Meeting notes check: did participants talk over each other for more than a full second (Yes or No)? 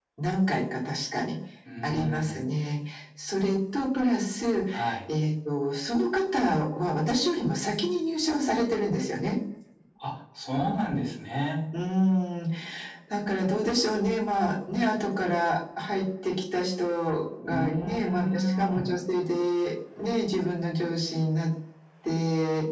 Yes